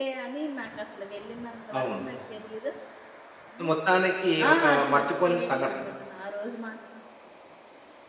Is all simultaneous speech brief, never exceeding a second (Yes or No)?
No